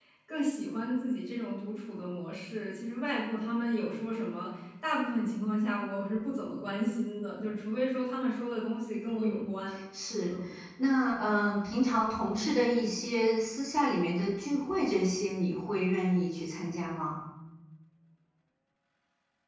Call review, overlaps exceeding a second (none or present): none